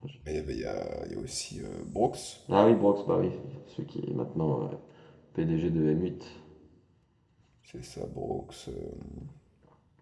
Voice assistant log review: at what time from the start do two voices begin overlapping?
none

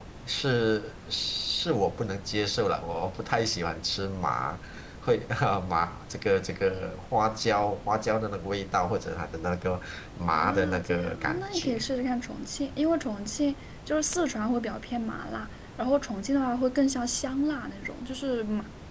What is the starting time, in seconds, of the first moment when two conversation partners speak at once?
10.3 s

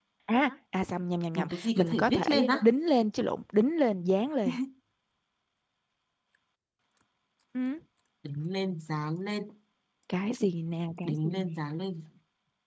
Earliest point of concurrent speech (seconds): 1.4 s

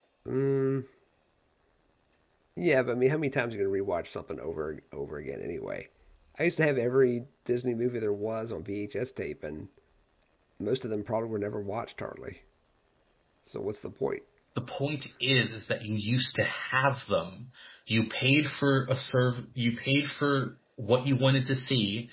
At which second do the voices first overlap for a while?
none

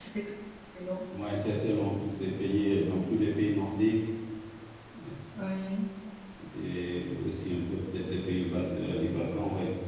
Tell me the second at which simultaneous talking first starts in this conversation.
none

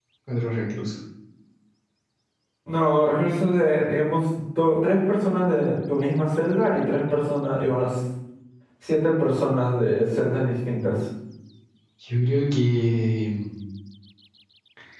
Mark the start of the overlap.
none

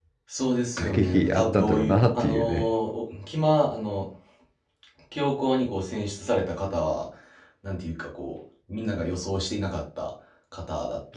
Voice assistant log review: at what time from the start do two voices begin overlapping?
0.8 s

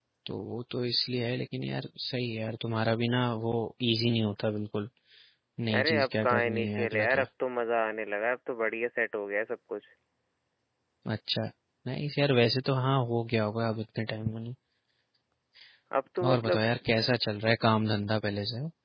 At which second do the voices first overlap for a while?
5.8 s

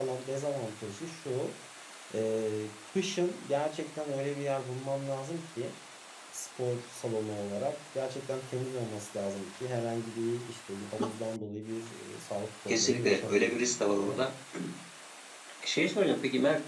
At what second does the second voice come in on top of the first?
12.7 s

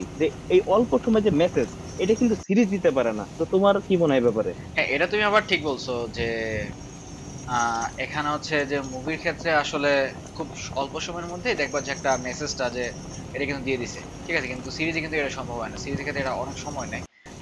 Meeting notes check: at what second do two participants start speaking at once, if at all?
none

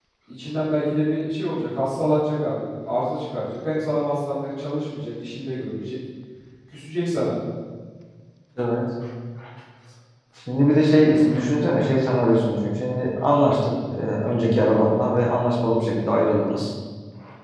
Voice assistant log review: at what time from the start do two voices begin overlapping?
none

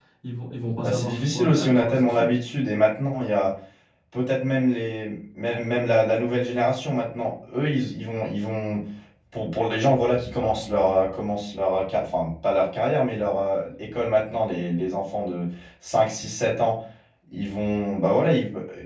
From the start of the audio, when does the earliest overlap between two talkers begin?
0.8 s

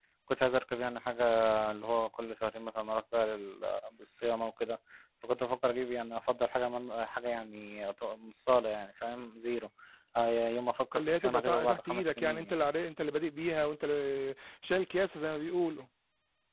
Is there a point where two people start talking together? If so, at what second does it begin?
10.9 s

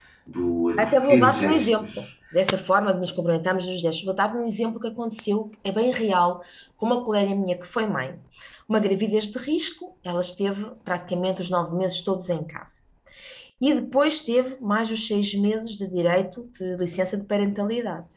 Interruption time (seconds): 0.8 s

